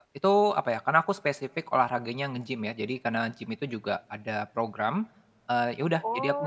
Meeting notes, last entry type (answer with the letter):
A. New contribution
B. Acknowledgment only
A